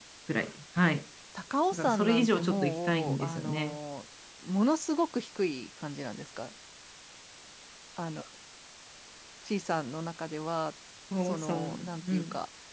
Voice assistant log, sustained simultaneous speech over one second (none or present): present